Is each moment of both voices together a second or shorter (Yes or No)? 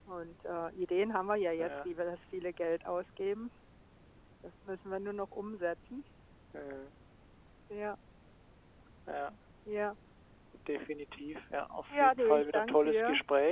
No